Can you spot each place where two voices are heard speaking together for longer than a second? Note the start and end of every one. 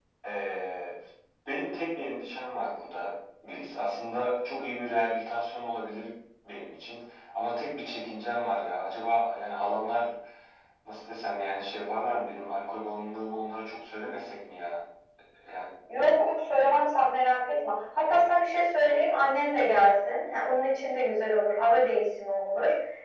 none

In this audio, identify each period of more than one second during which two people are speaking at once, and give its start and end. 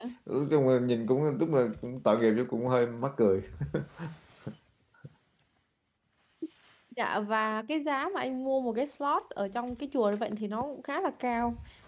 none

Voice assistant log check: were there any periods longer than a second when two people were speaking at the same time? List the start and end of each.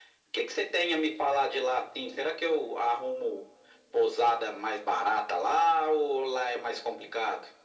none

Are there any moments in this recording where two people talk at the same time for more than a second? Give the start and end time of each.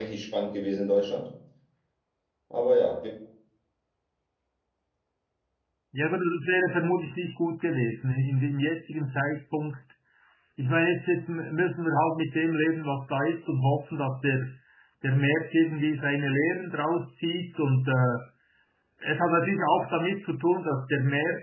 none

